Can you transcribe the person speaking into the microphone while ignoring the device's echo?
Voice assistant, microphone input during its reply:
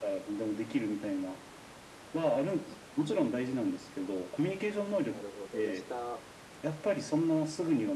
なるほど。じゃあ下

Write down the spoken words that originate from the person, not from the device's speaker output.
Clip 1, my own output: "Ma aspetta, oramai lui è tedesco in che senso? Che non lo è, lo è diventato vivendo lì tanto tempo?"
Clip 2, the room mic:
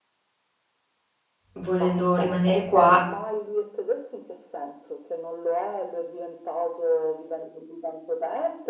volendo rimanere qua,

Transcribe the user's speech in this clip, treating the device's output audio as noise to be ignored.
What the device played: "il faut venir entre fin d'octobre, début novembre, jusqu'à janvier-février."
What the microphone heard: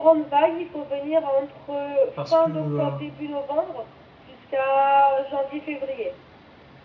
Parce que, euh,

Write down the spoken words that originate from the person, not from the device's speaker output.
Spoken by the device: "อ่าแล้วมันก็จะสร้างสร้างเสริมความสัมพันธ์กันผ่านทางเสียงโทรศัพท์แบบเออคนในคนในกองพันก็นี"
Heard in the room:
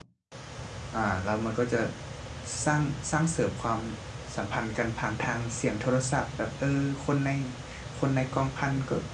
none

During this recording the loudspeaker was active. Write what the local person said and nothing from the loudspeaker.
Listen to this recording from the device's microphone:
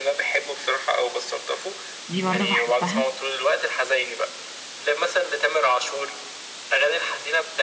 دي برضو بحبها

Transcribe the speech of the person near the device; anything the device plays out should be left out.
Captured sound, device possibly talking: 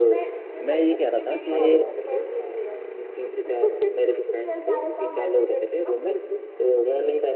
मैं ये कह रहा था कि

